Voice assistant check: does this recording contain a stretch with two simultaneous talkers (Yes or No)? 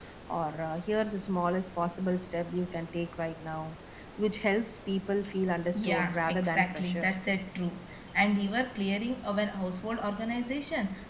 Yes